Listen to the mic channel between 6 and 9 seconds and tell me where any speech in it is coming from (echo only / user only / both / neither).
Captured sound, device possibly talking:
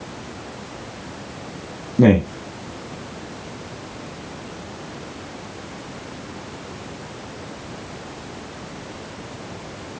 neither